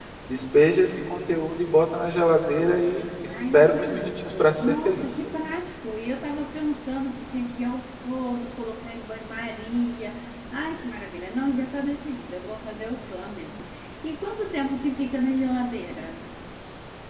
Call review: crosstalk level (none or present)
present